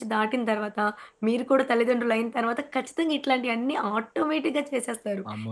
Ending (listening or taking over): taking over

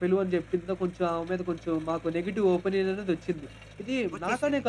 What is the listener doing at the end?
listening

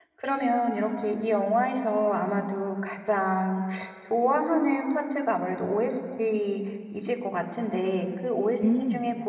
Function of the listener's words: listening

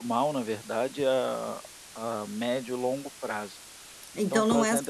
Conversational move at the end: taking over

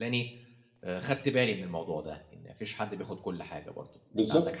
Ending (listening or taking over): taking over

